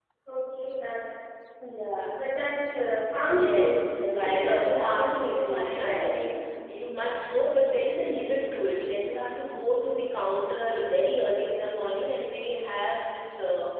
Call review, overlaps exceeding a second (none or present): present